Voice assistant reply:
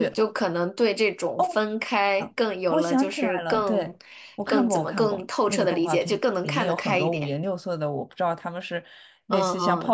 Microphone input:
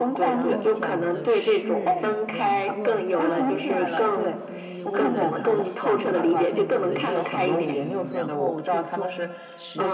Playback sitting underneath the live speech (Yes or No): No